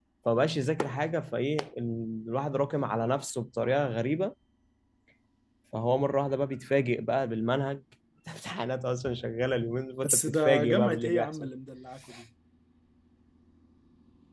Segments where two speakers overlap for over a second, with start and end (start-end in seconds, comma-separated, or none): 10.1-11.5